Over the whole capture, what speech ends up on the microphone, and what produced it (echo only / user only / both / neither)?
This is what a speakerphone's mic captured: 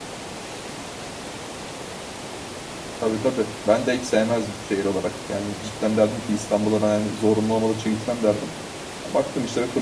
user only